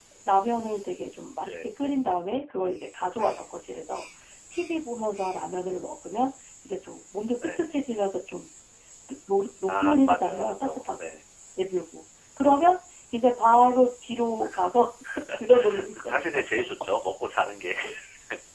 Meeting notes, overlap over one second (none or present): present